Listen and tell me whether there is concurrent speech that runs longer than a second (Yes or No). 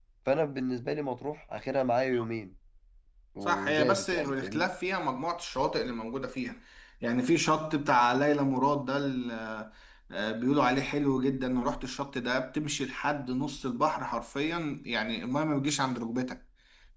Yes